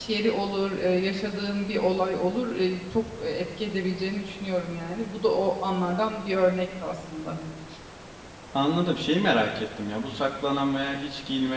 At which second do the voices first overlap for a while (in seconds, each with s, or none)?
none